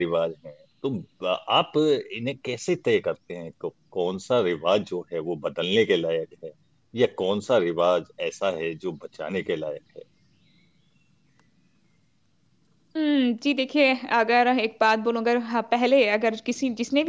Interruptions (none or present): none